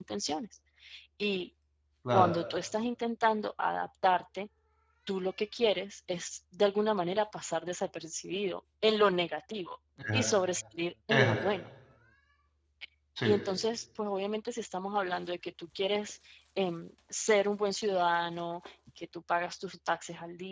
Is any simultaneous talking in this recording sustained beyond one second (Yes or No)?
No